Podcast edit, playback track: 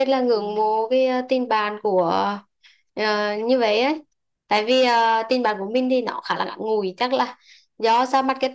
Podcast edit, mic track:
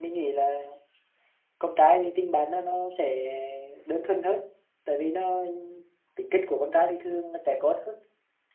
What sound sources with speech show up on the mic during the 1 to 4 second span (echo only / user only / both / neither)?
user only